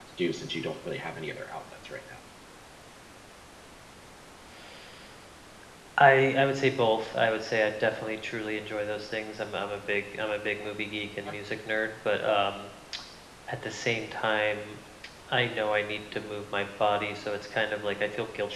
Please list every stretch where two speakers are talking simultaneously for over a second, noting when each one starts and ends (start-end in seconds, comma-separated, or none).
none